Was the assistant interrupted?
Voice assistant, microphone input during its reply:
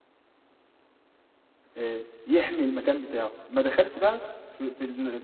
Yes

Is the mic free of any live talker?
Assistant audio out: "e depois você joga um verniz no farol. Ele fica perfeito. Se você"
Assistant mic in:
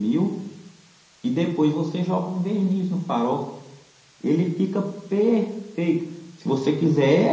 Yes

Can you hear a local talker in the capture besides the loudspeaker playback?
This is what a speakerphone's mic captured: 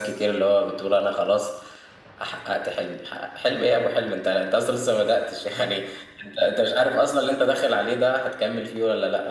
No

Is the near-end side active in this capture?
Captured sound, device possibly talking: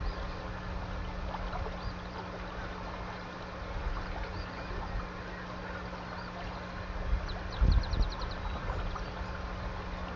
No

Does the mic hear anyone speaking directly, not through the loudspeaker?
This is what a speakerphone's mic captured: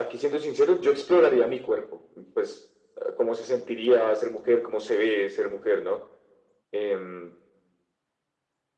No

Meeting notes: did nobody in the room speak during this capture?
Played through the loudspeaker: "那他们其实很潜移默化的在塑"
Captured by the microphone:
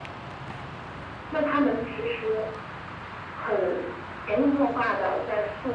Yes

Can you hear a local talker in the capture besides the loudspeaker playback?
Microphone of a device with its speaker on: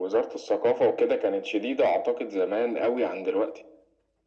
No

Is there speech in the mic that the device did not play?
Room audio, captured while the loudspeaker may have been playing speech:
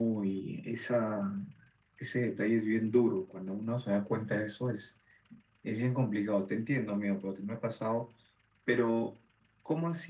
No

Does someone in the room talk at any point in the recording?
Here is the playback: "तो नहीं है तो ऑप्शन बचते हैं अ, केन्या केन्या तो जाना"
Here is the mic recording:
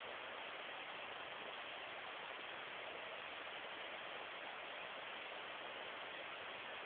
No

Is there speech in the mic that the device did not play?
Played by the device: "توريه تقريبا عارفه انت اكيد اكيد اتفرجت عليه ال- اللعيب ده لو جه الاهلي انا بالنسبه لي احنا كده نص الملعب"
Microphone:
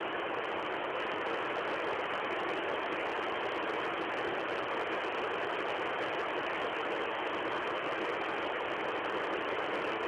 No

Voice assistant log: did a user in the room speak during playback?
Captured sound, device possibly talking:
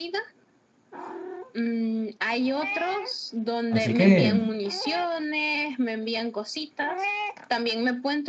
Yes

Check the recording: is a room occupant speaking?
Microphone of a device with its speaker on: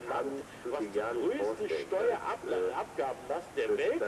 No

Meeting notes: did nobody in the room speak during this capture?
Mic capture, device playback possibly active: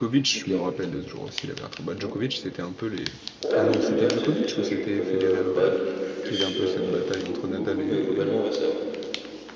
No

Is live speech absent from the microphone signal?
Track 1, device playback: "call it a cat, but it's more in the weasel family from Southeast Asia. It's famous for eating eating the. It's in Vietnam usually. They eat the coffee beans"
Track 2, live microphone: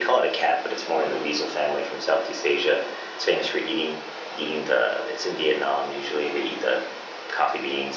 Yes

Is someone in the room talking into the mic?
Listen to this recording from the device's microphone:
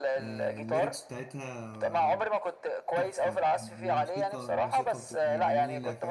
Yes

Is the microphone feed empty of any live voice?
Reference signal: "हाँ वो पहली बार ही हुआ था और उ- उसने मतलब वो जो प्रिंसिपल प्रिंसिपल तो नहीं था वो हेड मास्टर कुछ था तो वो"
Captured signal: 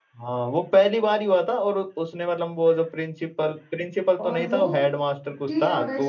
No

